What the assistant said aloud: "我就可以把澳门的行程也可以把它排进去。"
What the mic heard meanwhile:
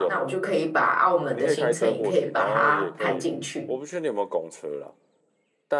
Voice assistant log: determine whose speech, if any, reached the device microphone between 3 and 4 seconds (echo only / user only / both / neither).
both